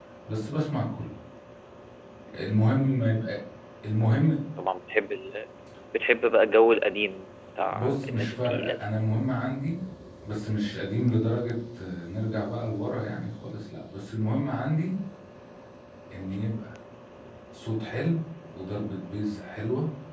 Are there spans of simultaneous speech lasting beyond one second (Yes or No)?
Yes